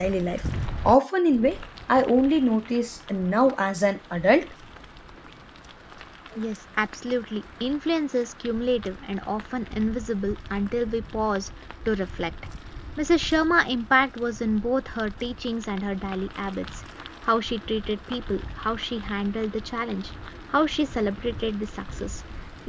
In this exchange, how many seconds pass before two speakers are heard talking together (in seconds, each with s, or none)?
none